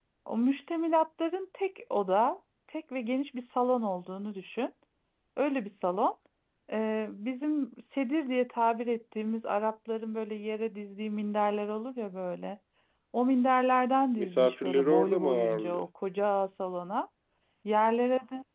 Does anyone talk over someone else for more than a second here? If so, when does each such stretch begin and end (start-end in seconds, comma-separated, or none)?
14.2-15.9